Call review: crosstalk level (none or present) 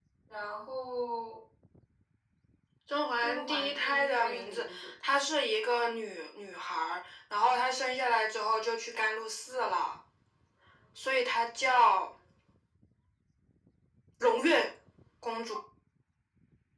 present